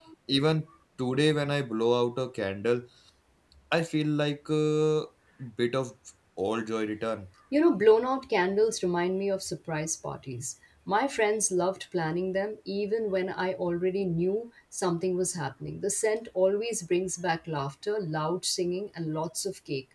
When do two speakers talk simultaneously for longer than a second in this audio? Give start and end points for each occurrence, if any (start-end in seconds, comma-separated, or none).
none